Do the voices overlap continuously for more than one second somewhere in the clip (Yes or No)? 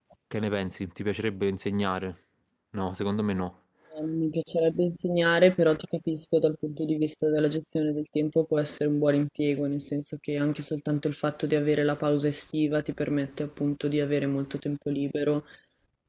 No